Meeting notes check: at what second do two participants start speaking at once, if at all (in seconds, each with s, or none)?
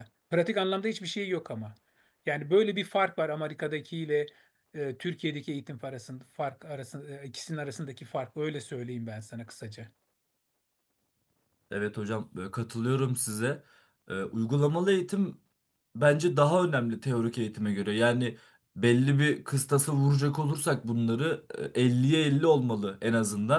none